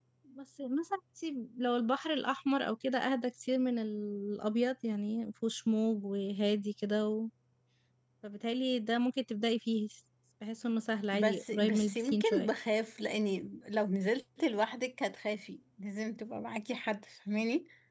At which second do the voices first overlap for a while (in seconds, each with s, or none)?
11.1 s